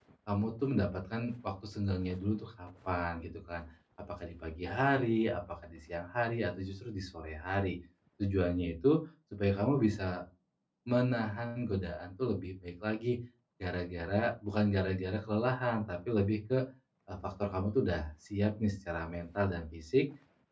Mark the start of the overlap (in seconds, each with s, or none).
none